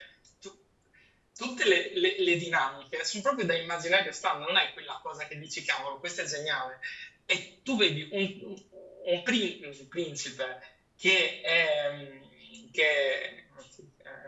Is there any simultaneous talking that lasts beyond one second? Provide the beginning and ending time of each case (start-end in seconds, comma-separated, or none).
none